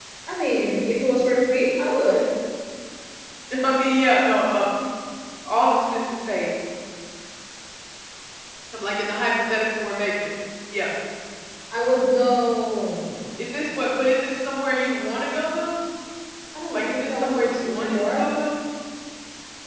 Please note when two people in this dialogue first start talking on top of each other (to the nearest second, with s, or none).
17 s